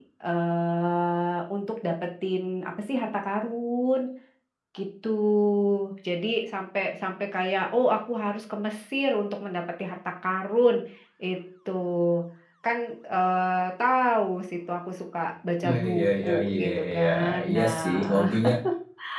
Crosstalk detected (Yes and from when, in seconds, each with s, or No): Yes, from 15.6 s